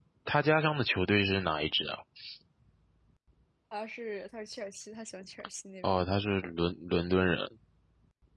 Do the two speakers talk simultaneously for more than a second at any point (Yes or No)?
No